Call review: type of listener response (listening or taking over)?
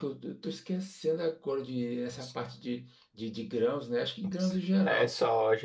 taking over